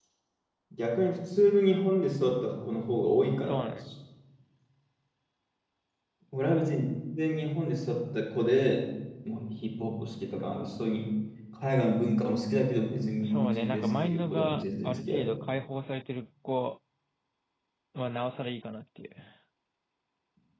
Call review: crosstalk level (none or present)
present